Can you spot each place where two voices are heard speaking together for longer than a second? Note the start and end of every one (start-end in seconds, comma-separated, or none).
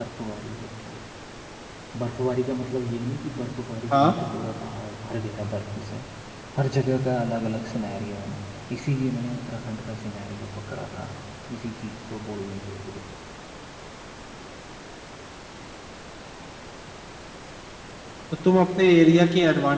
none